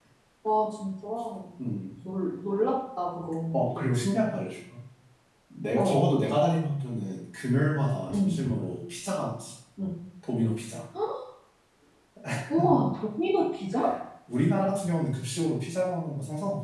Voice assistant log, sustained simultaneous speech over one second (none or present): none